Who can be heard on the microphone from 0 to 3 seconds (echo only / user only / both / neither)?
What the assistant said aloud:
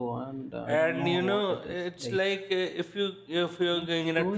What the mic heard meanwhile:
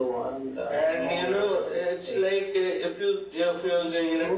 echo only